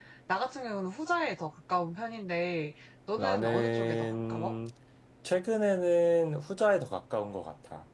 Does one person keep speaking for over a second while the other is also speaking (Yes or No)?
Yes